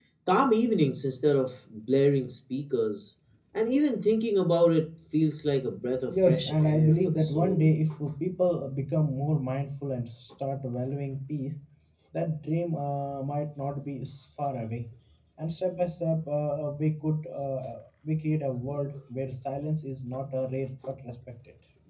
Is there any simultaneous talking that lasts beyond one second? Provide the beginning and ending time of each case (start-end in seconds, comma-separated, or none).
6.1-7.7